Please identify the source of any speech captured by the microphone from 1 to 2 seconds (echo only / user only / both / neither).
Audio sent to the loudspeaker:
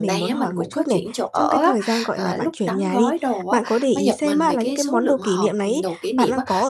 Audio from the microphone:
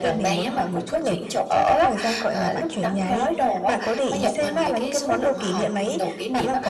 echo only